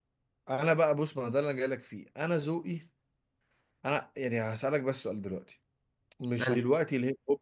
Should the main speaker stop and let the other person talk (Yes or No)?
No